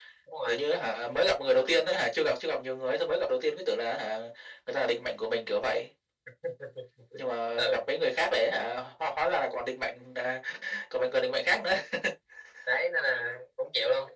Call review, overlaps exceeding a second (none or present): none